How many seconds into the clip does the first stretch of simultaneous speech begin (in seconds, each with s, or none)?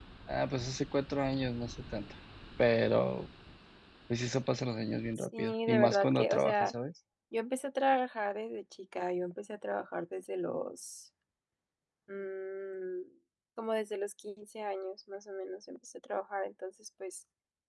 5.2 s